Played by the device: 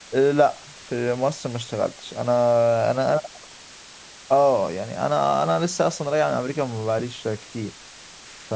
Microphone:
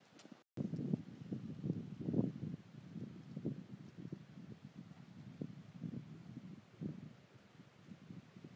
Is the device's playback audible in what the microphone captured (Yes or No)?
No